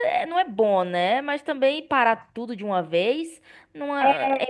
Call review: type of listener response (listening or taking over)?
taking over